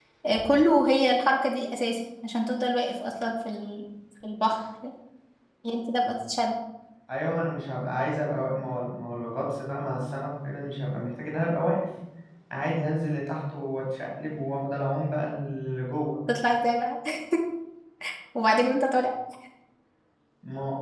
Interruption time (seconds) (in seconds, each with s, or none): none